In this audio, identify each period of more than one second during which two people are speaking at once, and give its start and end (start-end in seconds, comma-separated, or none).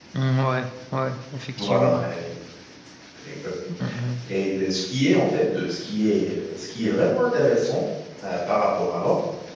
none